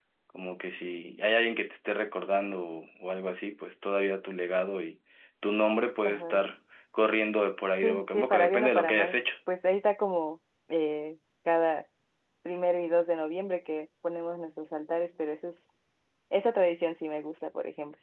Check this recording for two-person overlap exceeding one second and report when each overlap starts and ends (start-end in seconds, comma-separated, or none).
7.7-9.2